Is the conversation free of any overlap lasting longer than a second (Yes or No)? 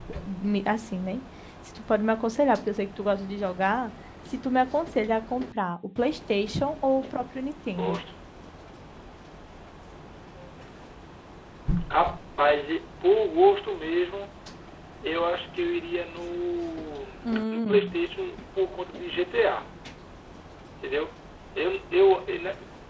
Yes